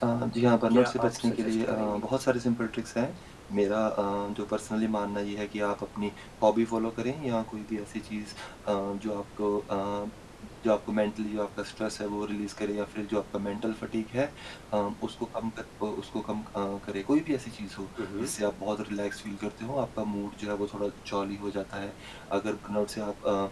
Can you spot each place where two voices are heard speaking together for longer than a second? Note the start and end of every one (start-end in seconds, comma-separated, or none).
0.7-2.0